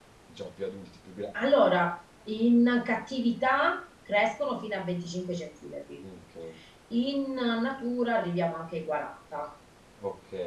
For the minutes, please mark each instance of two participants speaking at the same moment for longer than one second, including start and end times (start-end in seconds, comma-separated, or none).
none